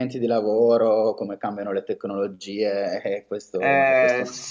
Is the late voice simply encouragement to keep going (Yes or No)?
No